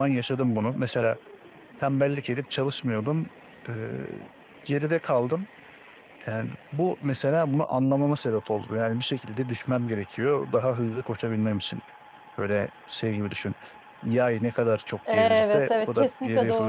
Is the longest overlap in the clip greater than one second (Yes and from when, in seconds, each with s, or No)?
Yes, from 15.1 s